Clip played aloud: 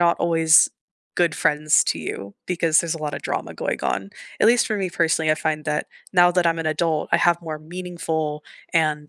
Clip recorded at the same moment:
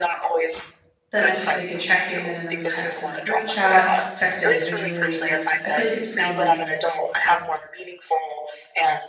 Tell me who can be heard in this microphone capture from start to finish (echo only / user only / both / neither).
both